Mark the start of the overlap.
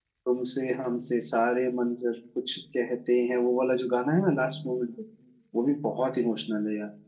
none

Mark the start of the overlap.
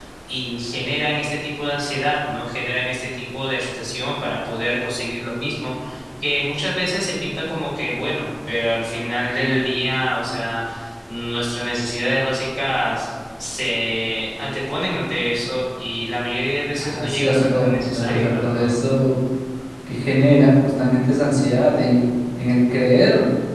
16.7 s

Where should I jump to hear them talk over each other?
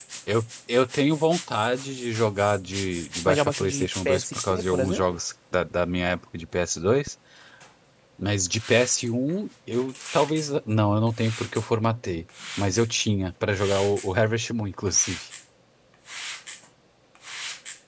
3.2 s

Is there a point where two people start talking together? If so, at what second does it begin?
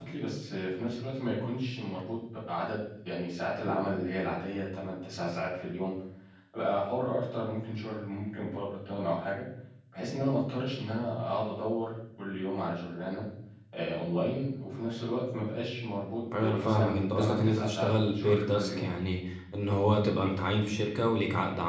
16.3 s

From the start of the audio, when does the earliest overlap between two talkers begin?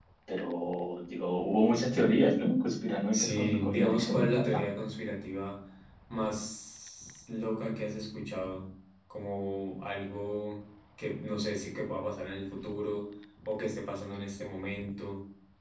3.1 s

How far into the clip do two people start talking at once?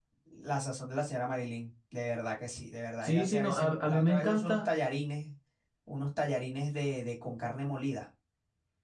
3.0 s

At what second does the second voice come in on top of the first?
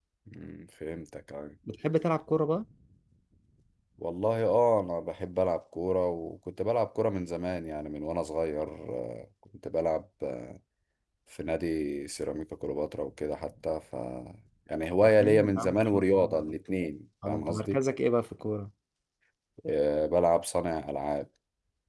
15.0 s

